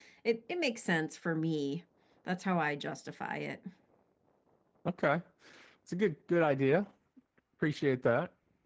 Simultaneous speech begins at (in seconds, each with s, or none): none